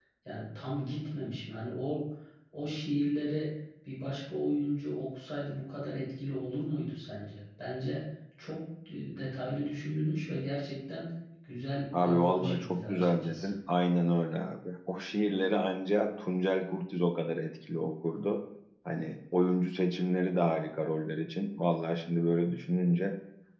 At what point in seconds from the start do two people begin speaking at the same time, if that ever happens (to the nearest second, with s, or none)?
12 s